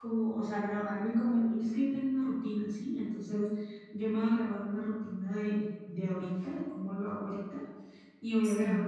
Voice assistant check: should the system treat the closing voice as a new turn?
No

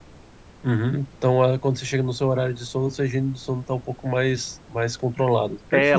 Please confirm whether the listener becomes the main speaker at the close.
Yes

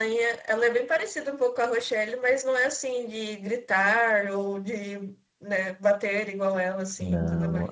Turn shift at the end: Yes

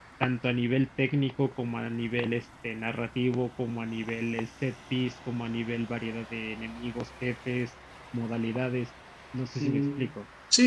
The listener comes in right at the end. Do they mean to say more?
Yes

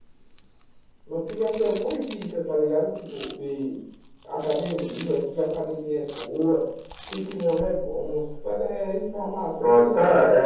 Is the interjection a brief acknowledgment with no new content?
No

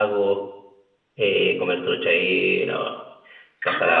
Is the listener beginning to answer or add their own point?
Yes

